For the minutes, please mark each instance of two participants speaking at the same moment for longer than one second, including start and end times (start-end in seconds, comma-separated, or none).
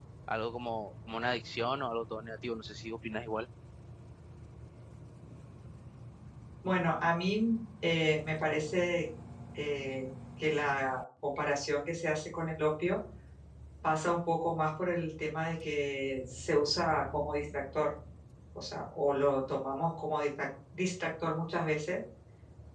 none